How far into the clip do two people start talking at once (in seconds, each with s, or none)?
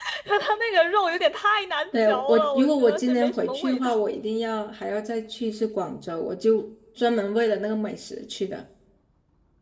1.9 s